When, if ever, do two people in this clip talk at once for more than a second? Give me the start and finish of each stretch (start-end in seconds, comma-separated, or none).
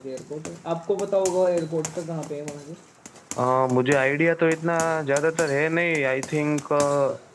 none